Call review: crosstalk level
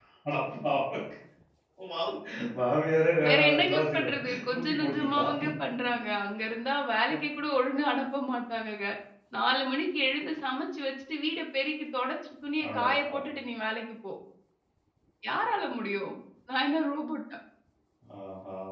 present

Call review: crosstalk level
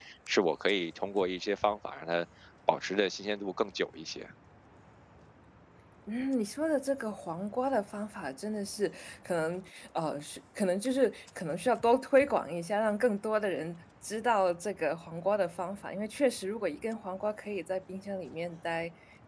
none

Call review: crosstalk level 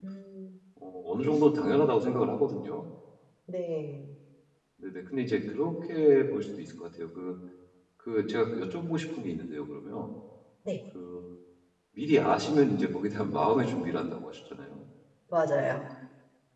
none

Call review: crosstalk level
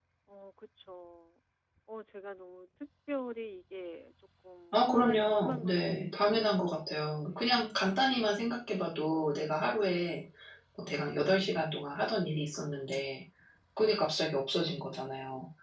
present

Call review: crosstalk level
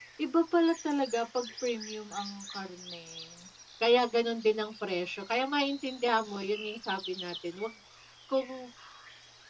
none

